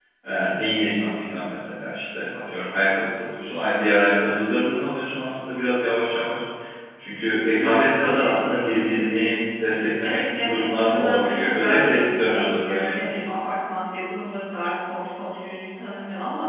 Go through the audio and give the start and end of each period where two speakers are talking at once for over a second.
7.6-9.2, 10.0-13.0

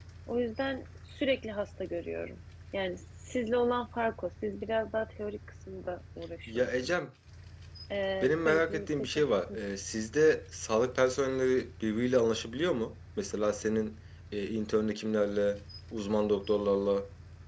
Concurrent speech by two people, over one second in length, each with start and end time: 8.2-9.6

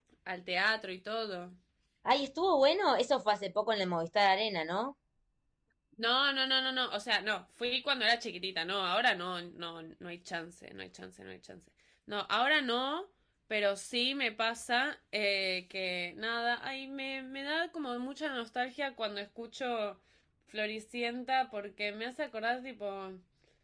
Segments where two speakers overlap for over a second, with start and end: none

